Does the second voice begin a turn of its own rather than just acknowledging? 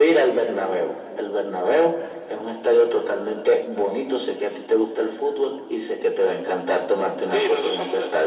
Yes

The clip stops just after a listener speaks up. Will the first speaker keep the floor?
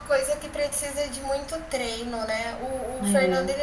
Yes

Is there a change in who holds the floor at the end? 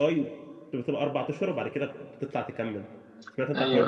Yes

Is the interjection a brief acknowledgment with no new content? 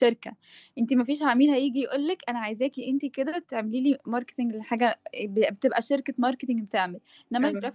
Yes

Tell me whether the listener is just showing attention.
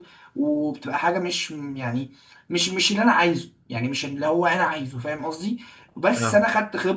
Yes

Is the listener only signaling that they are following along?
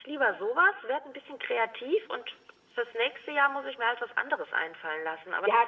No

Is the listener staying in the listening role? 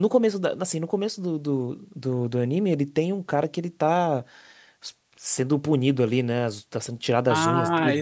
No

